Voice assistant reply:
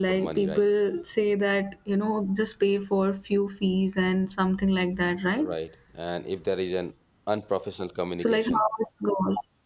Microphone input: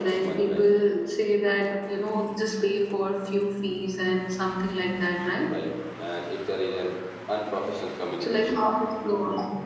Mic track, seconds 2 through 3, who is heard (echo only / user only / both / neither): echo only